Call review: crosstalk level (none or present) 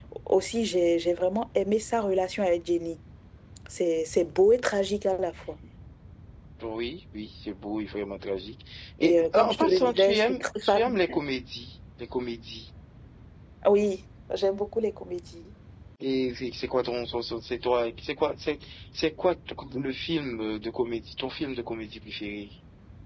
present